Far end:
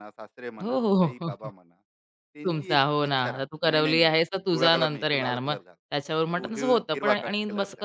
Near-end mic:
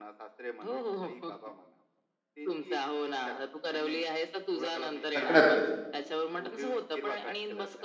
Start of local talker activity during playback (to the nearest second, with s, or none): 5 s